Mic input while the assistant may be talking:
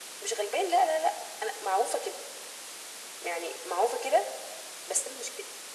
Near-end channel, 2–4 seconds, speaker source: echo only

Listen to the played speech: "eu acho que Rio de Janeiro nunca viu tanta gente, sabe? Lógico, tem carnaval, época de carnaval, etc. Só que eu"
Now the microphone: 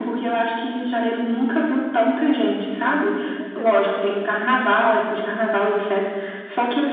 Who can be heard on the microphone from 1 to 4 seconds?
both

